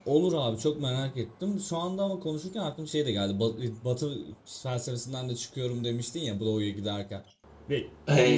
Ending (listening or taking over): taking over